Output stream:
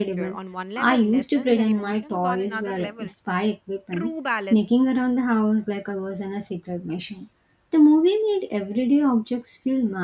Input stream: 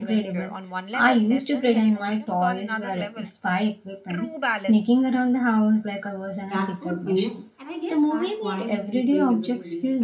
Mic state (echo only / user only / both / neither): both